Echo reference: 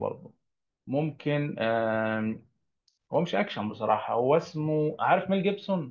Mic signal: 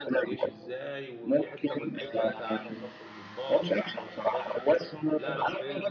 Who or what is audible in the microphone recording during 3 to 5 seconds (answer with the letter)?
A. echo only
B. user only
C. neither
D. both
D